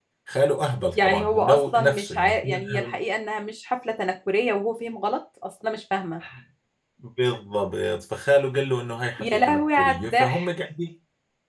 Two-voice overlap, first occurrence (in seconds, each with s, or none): 0.9 s